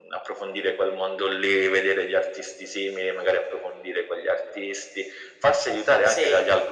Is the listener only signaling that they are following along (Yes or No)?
Yes